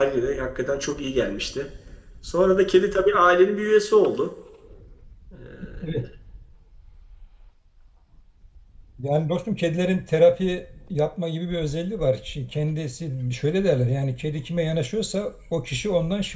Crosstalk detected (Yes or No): No